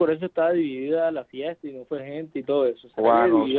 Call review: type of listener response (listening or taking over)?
taking over